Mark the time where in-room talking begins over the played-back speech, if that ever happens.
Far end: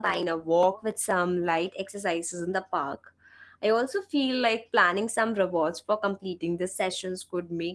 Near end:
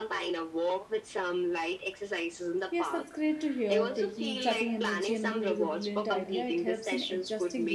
2.7 s

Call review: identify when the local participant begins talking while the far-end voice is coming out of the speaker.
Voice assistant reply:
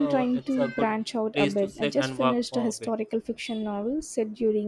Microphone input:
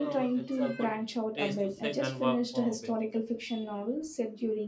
none

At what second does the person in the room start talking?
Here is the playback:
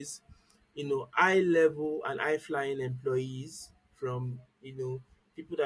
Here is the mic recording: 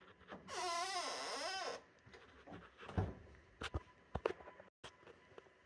none

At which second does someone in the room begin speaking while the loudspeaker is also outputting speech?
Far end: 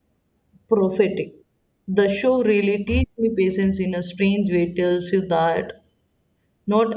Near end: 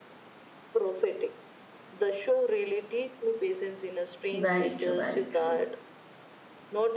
4.3 s

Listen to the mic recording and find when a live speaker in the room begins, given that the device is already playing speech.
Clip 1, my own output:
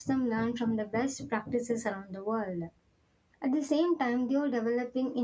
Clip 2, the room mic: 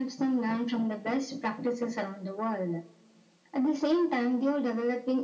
none

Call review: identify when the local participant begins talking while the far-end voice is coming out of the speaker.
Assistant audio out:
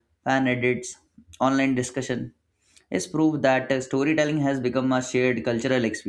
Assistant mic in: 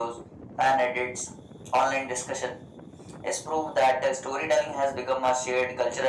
none

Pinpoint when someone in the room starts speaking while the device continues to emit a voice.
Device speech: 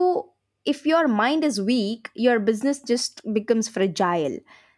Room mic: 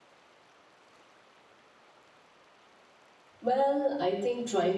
3.4 s

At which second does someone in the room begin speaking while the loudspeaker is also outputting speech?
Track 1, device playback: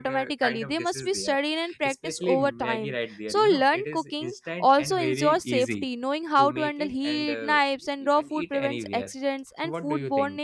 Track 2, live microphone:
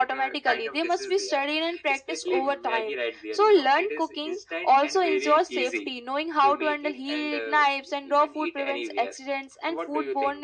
none

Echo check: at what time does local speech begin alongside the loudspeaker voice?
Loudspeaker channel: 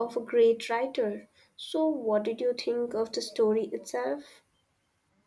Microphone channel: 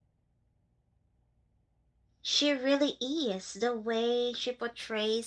2.2 s

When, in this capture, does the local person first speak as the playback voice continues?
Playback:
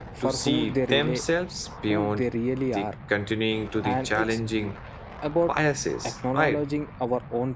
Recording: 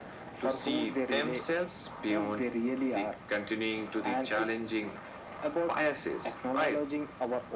none

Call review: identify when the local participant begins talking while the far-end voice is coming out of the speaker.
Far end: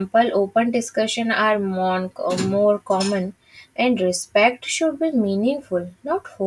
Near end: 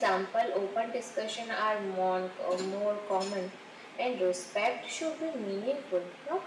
none

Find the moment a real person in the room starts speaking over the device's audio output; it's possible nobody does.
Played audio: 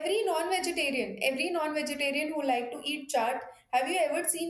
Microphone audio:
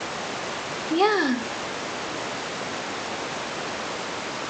0.9 s

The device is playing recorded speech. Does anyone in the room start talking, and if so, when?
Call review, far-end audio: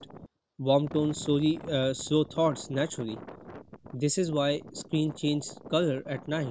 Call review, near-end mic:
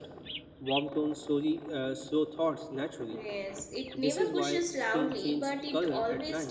3.1 s

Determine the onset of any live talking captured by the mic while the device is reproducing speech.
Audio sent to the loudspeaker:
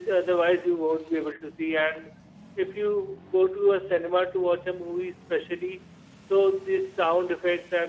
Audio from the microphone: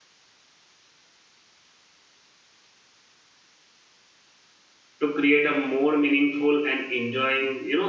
5.0 s

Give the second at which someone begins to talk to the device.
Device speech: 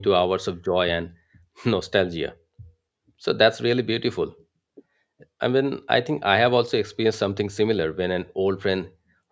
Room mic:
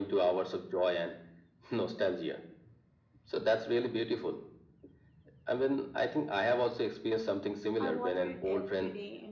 7.8 s

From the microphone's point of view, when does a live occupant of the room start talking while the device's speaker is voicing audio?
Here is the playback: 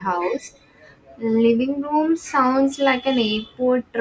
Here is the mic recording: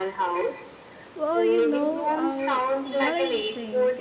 1.1 s

